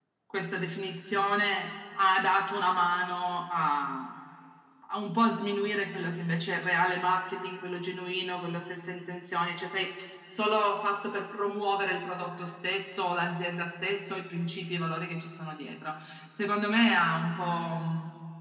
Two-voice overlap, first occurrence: none

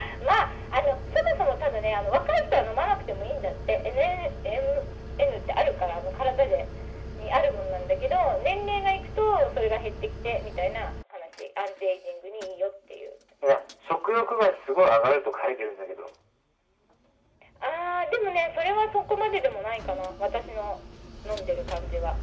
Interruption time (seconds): none

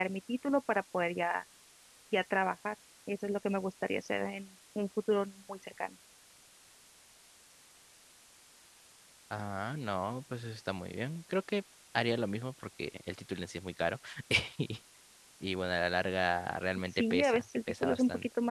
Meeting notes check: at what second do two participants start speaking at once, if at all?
17.0 s

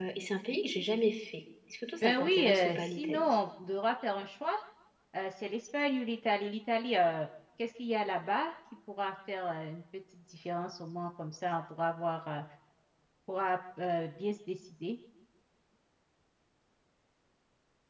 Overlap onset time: 2.0 s

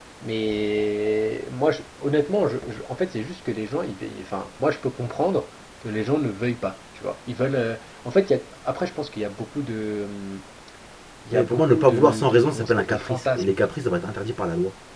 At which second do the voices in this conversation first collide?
11.3 s

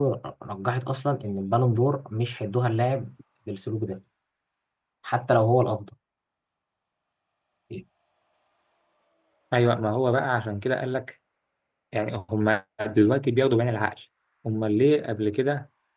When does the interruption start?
none

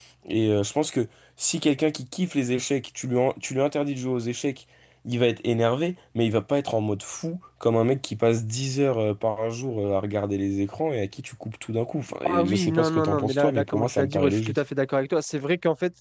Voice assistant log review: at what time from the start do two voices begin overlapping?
12.2 s

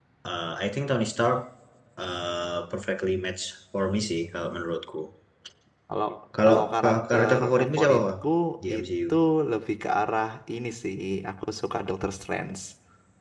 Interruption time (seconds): 6.4 s

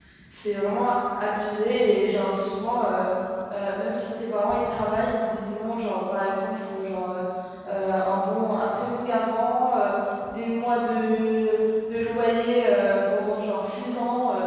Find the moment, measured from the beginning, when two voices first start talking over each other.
none

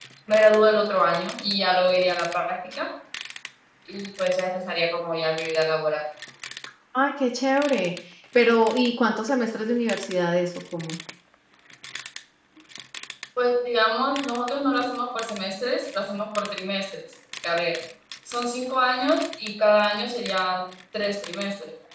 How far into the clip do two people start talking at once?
none

